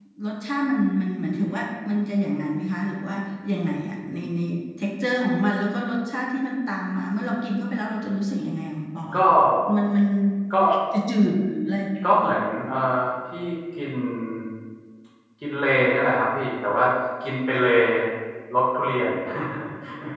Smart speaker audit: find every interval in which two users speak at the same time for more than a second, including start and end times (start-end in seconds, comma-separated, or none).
none